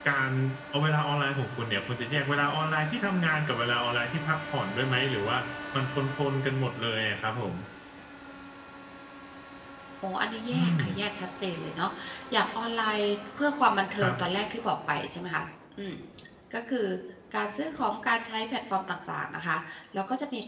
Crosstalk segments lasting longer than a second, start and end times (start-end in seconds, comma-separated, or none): none